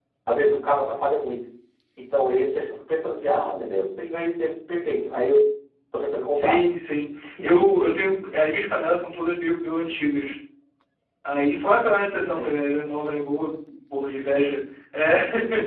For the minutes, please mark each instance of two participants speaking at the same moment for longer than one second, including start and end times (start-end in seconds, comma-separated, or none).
none